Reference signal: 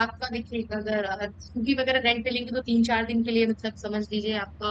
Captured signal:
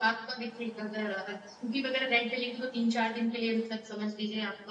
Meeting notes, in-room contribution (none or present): none